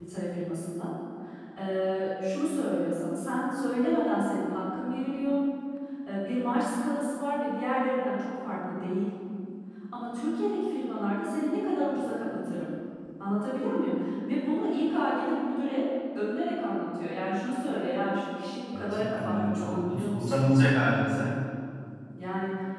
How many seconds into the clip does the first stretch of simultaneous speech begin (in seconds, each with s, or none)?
18.7 s